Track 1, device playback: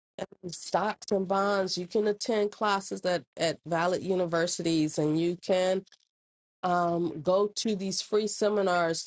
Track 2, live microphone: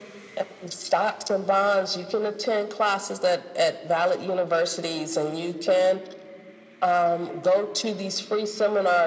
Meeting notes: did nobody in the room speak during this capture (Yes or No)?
Yes